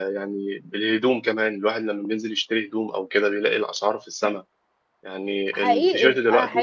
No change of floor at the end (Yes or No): No